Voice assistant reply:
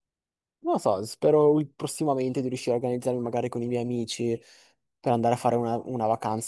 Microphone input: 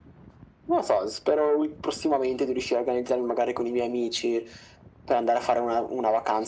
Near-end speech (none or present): none